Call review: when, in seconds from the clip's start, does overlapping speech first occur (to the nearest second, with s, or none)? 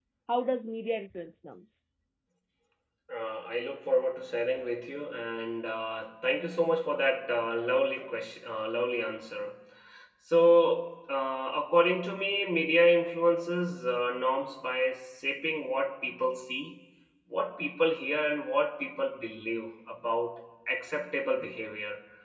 none